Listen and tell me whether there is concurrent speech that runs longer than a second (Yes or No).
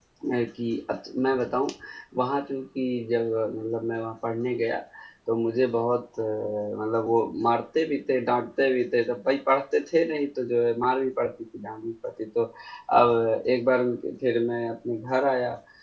No